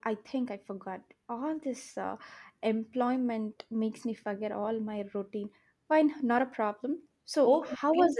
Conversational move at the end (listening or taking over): taking over